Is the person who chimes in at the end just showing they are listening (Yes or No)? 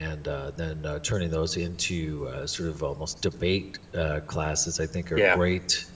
Yes